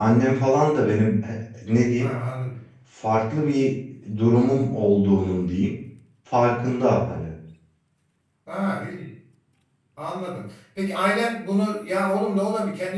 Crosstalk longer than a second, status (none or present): none